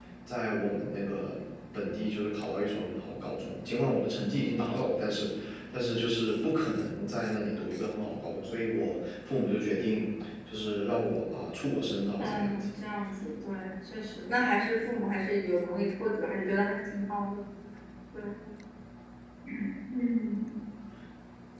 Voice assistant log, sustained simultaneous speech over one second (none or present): none